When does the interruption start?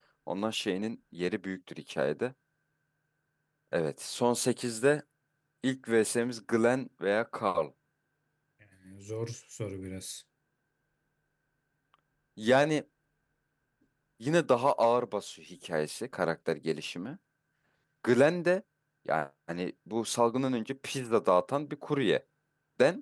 none

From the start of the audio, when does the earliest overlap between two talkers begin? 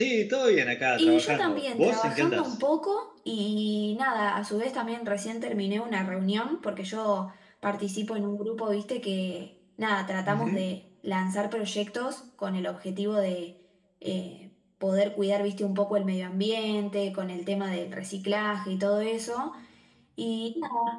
1.0 s

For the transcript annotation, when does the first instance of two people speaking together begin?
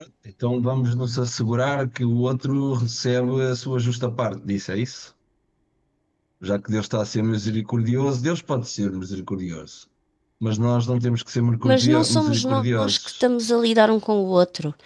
11.7 s

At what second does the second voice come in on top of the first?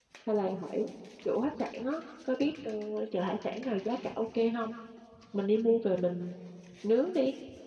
none

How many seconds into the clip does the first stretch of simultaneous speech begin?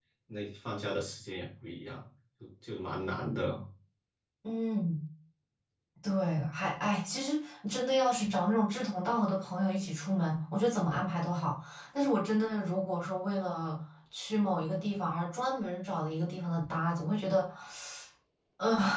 none

